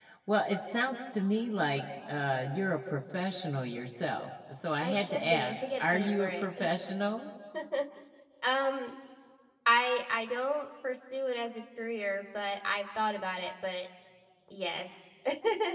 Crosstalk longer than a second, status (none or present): present